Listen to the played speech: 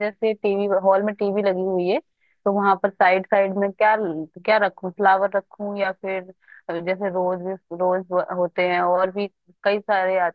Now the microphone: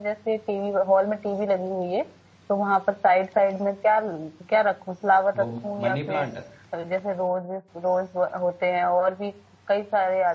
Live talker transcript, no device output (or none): वो मनी प्लांट